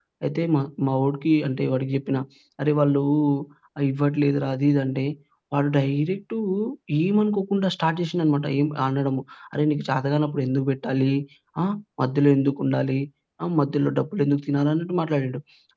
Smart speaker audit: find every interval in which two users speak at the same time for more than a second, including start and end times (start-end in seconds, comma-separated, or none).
none